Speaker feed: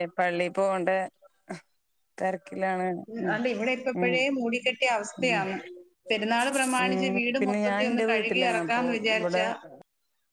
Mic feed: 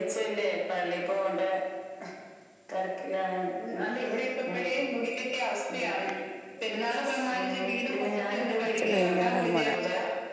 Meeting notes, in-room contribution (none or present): present